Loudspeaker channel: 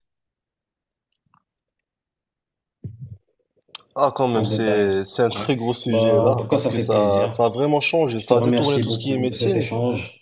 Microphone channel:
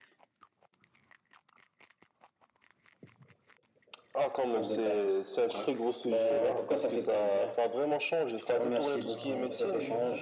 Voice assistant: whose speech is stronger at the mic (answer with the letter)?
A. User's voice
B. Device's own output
B